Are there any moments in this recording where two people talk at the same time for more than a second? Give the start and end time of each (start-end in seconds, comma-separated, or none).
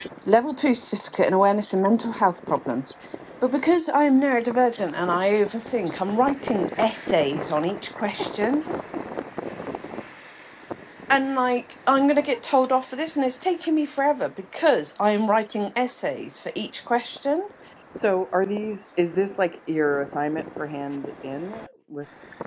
none